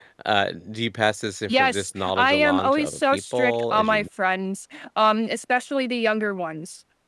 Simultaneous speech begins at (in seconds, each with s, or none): 1.5 s